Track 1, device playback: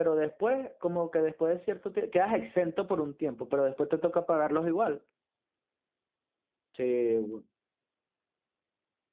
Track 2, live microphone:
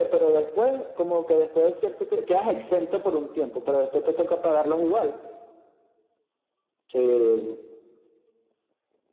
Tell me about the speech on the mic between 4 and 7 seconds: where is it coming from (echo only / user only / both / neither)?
echo only